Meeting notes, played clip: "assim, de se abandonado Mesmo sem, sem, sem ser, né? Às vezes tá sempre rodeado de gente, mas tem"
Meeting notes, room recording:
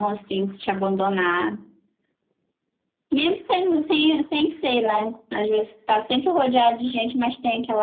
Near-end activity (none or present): none